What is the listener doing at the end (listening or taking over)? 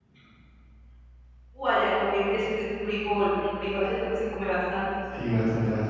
taking over